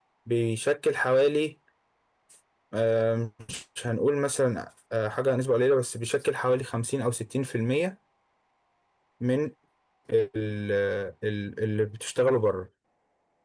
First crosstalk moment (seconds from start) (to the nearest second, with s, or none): none